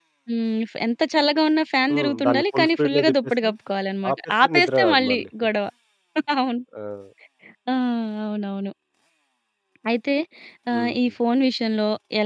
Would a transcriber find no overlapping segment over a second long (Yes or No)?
No